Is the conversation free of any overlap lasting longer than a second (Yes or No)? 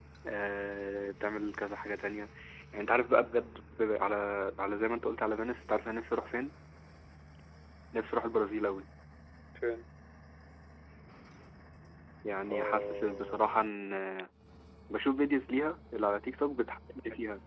No